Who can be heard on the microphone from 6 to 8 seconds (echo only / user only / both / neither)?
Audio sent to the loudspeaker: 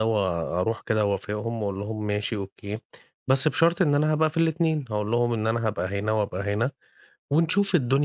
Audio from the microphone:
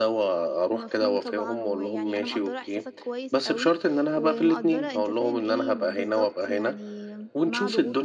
both